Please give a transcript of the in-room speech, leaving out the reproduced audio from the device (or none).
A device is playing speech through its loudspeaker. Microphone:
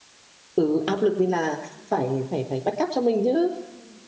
ừ áp lực nên là phải phải phải backup cho mình chứ